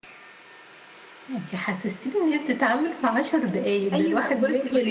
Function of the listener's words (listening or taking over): taking over